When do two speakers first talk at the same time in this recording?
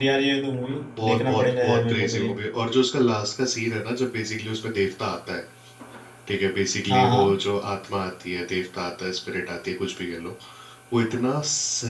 1 s

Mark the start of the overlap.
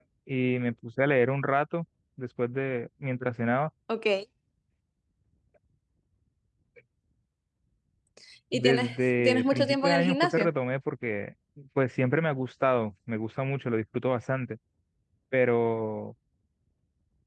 9 s

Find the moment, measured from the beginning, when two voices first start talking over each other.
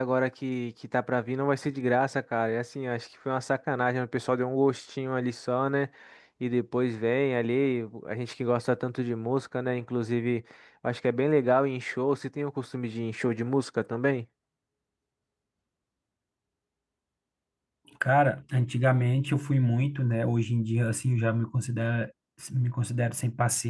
none

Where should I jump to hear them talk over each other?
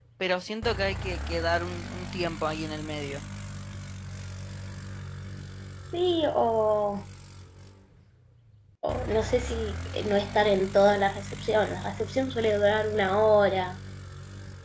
none

